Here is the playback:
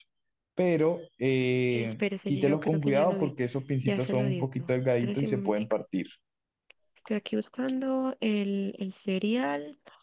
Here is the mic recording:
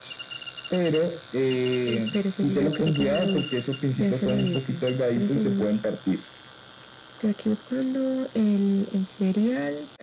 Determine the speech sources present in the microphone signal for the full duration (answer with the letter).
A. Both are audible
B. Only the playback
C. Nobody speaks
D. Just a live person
B